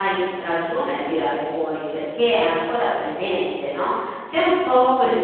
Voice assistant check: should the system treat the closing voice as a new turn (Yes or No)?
No